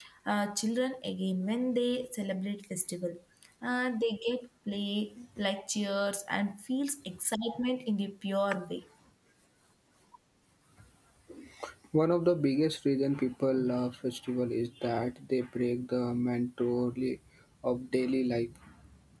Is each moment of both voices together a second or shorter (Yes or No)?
Yes